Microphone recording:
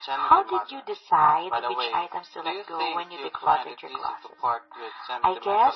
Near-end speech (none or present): none